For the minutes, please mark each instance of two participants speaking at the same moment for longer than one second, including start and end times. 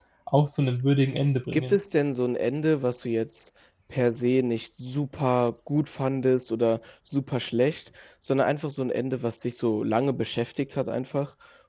none

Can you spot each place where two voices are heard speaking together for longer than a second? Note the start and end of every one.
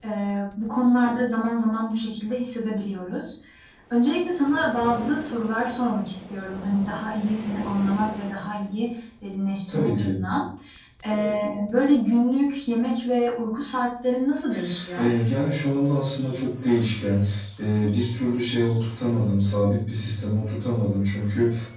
none

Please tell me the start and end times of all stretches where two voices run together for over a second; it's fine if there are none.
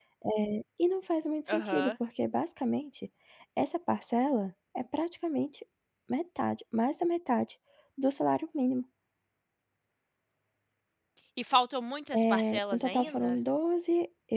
12.1-13.4

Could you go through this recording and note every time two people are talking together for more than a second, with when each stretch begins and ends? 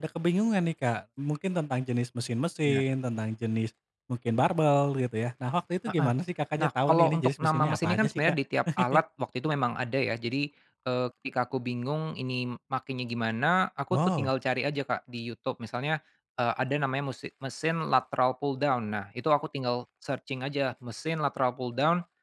6.6-8.3

